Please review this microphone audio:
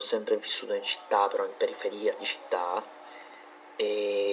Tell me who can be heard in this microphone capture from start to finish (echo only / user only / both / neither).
echo only